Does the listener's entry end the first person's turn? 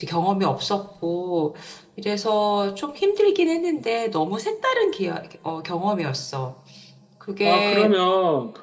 Yes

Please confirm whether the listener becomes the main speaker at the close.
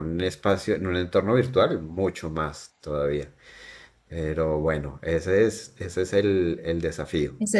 Yes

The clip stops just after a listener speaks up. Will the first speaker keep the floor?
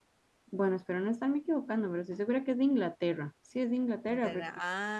No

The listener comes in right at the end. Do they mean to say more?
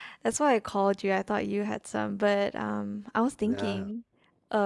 No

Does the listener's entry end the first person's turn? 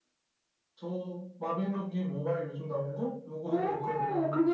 Yes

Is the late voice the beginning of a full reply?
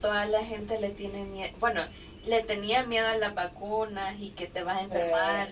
No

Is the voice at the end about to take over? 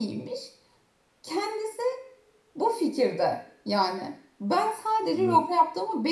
No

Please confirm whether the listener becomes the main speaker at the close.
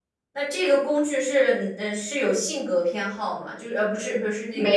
No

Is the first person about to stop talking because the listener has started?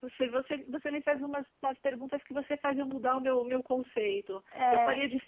No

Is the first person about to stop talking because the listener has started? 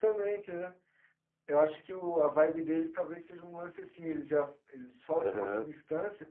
No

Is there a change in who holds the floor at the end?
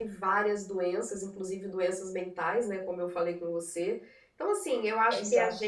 No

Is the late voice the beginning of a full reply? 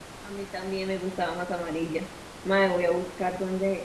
No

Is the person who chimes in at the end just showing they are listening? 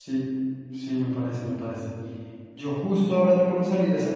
Yes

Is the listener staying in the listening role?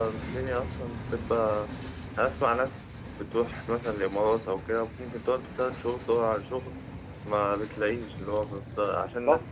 Yes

